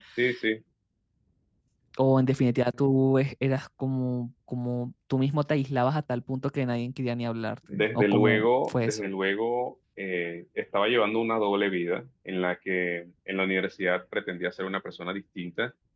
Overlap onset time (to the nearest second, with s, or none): 8 s